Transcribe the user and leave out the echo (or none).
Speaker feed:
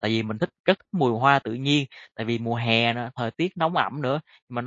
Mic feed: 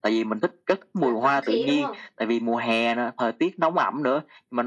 là thoáng khí, đúng không?